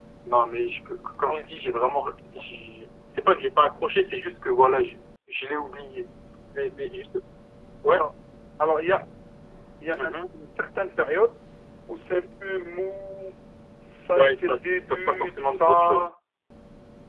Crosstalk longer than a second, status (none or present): present